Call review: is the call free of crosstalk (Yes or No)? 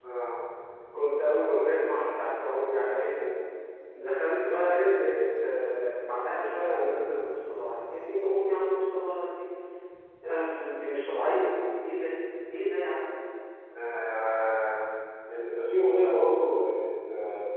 Yes